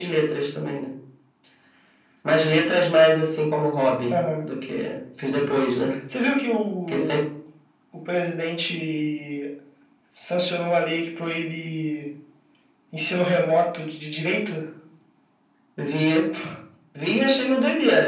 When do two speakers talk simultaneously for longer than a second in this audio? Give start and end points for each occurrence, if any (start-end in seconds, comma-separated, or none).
none